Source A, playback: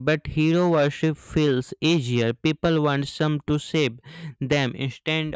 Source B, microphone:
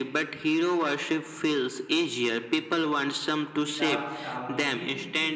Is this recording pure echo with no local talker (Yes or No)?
No